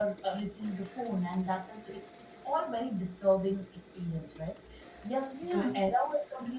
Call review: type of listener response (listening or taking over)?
listening